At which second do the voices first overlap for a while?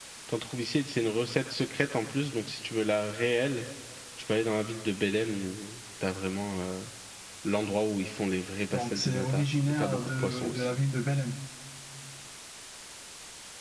8.7 s

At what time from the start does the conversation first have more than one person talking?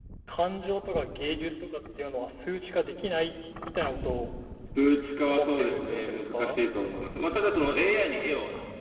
5.3 s

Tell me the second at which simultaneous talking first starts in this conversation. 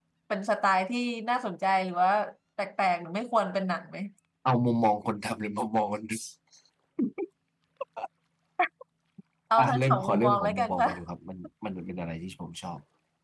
9.6 s

